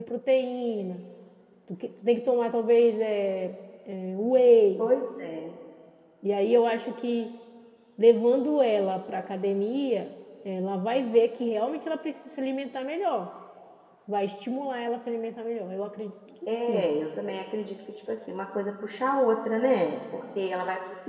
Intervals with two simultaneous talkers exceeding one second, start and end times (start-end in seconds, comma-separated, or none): none